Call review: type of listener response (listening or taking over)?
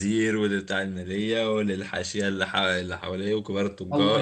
taking over